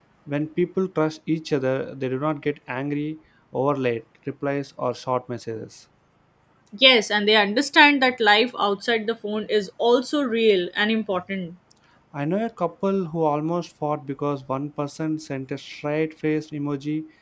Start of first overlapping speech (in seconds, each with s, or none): none